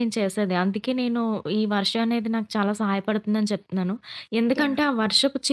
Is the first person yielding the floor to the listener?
No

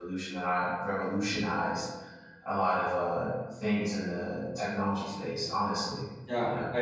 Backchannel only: No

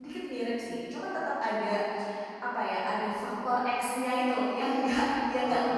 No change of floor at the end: Yes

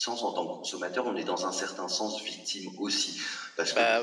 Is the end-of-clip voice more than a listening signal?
Yes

